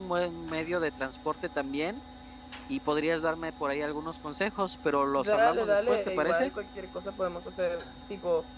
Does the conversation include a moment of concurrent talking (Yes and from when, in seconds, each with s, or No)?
Yes, from 5.2 s